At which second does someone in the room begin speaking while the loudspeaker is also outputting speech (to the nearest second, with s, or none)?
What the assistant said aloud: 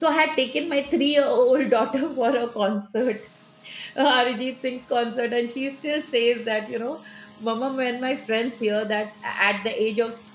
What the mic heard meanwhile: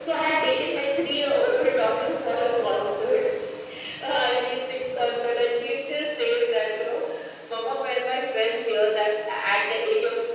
none